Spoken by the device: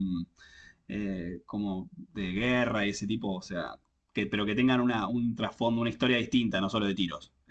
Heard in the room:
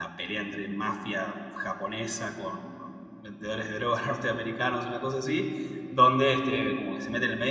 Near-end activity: present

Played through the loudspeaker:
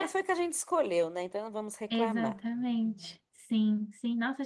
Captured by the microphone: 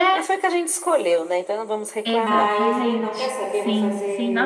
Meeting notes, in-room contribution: present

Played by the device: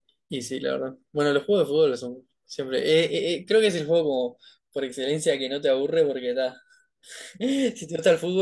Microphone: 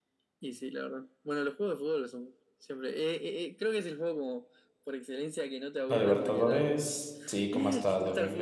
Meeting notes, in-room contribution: present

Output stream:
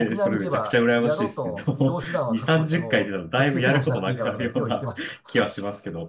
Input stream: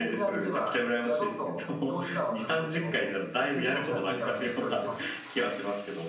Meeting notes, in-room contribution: none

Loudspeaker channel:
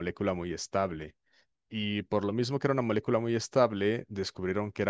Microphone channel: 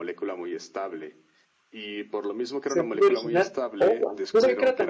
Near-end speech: present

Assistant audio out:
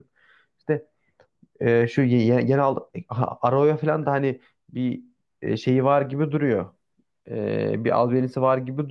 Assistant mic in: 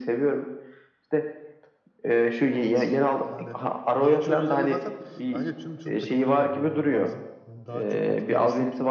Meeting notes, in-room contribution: present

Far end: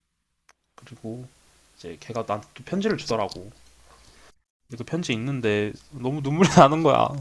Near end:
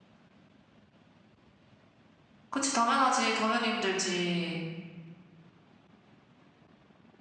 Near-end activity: present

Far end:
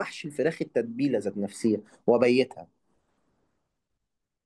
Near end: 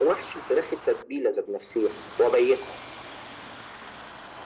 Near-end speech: none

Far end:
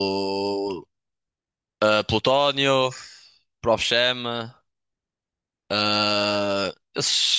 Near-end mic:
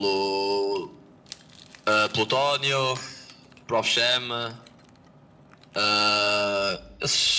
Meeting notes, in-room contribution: none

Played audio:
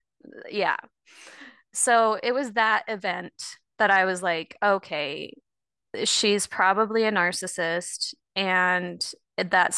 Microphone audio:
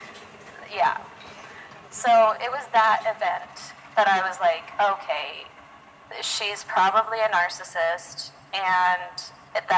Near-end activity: none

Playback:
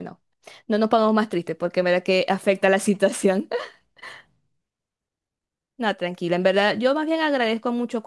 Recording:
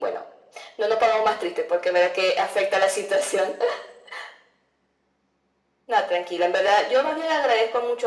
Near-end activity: none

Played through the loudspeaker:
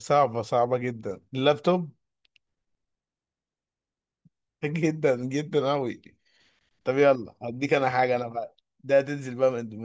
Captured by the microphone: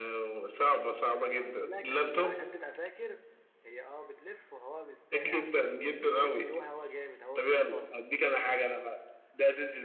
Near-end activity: present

